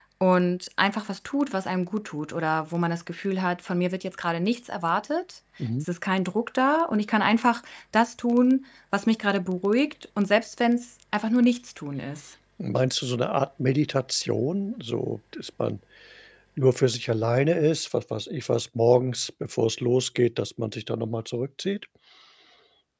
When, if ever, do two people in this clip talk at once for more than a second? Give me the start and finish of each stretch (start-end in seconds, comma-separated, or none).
none